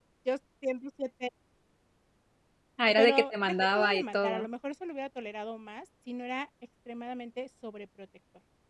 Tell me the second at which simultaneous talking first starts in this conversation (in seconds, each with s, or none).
3.0 s